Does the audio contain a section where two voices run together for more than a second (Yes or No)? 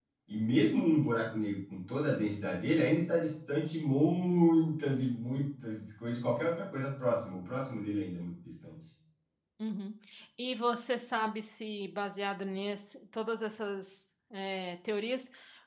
No